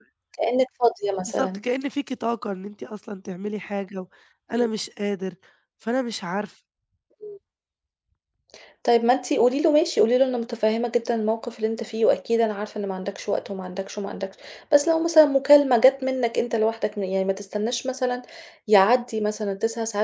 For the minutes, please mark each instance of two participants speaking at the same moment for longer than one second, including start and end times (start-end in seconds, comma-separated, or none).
none